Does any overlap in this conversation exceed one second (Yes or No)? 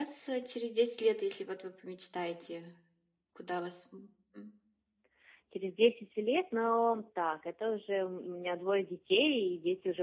No